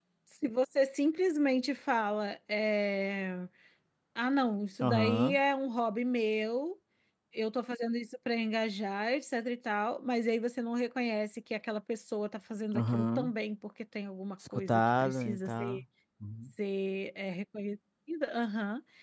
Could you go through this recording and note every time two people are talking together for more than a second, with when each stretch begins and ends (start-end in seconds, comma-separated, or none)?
14.6-15.8